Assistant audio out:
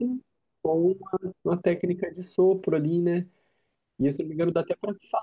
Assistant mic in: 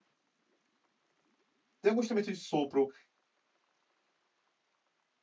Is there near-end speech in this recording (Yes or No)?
Yes